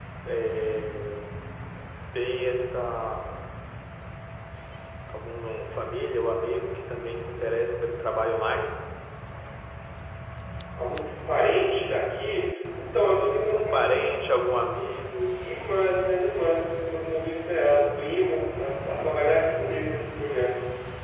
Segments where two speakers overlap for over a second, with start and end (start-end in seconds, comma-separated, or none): none